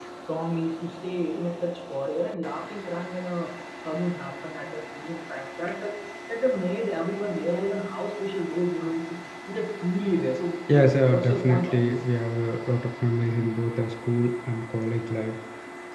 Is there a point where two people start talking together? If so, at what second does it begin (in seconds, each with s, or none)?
10.7 s